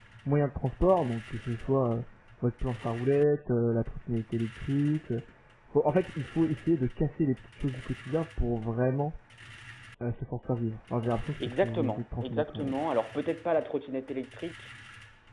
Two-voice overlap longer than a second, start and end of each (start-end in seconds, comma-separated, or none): 11.4-12.7